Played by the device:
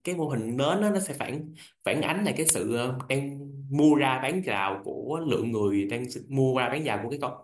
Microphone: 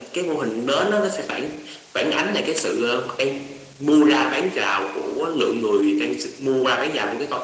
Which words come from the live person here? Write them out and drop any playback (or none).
none